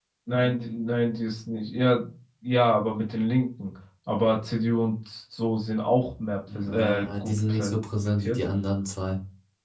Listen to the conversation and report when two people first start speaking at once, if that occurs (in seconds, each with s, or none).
6.5 s